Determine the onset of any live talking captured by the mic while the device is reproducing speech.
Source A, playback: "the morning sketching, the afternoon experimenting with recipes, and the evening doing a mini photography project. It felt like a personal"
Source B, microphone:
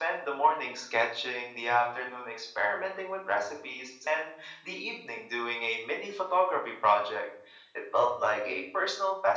none

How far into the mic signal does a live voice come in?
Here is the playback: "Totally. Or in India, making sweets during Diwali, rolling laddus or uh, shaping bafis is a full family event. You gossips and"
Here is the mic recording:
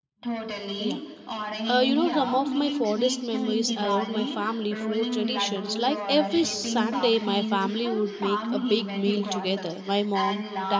1 s

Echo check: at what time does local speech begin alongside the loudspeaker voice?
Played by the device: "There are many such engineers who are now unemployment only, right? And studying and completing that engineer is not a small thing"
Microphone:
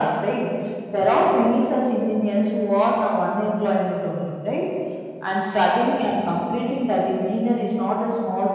none

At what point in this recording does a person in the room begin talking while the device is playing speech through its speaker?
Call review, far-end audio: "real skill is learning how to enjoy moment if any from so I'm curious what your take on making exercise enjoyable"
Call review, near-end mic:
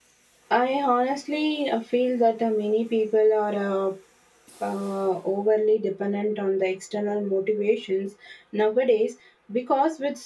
1 s

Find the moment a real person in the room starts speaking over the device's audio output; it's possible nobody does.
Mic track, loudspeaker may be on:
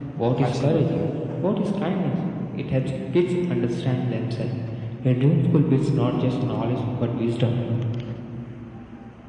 0 s

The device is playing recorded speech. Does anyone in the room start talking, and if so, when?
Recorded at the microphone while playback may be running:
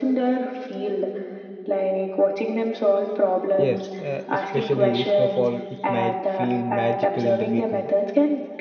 4 s

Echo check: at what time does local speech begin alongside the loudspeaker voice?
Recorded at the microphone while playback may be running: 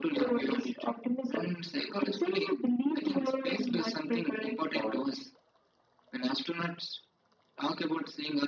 none

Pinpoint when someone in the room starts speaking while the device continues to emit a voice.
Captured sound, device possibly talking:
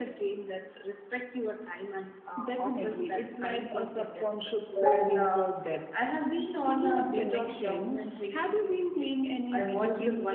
5 s

